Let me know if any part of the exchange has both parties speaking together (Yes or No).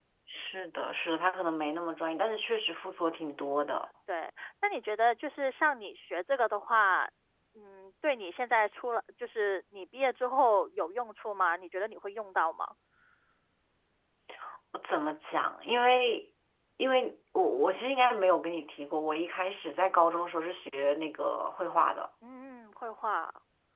No